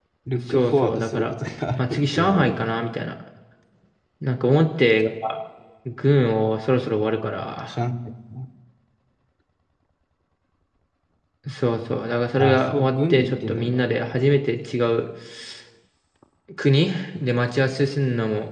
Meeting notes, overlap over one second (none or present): present